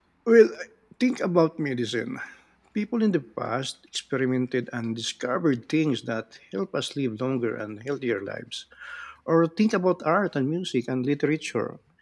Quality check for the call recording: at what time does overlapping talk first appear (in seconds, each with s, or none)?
none